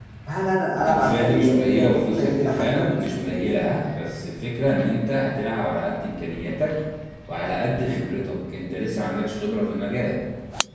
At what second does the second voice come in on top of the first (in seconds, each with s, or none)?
0.8 s